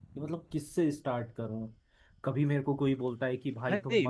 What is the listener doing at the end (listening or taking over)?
taking over